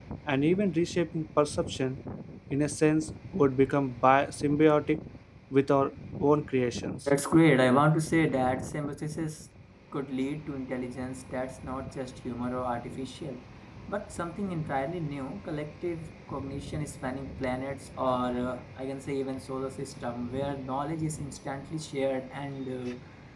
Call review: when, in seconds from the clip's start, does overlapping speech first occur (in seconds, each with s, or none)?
none